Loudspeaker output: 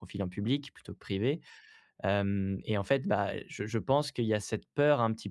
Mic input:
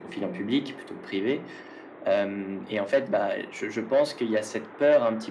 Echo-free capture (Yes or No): No